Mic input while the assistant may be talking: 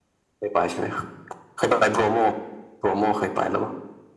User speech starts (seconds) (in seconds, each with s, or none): none